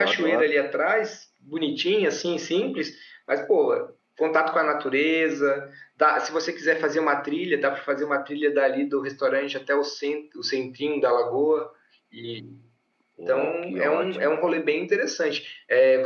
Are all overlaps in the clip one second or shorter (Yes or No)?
No